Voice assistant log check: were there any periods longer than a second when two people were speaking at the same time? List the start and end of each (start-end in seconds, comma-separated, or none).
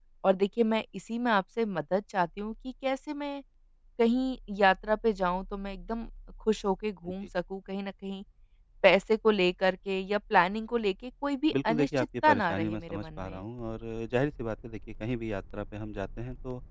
11.7-13.4